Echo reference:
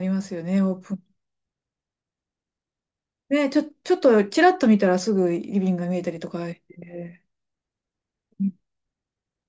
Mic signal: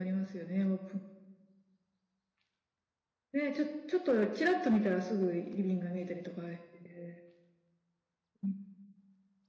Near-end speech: none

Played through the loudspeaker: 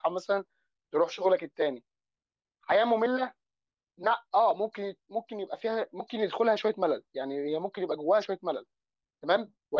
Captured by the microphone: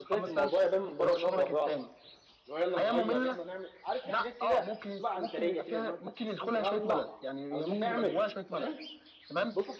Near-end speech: present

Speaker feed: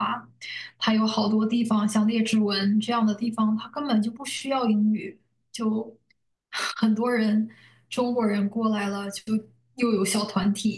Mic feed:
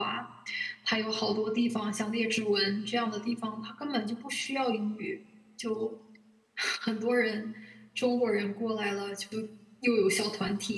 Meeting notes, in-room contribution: none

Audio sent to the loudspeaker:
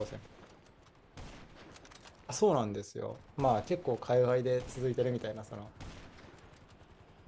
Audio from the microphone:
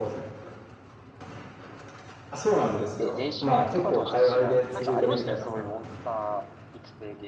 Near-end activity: present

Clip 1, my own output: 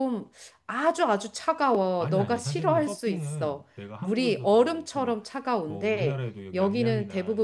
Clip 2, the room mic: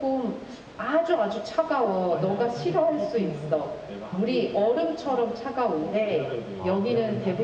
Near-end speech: present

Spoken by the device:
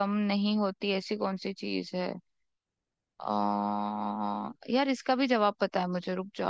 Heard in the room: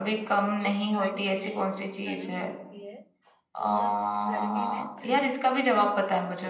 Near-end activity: present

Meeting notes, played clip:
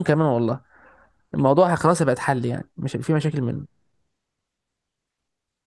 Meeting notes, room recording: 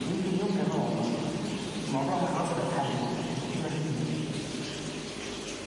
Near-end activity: none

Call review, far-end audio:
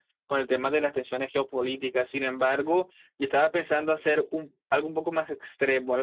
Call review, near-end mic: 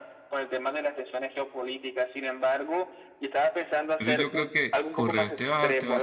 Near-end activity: present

